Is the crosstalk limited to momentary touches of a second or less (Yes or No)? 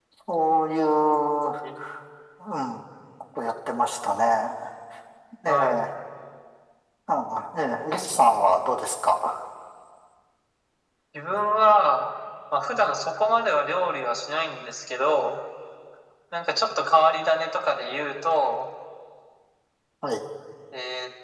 Yes